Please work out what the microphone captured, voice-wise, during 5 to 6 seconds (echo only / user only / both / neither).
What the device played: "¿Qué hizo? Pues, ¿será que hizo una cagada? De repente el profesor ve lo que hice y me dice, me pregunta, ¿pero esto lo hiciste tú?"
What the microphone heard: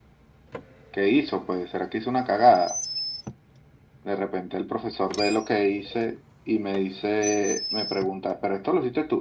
echo only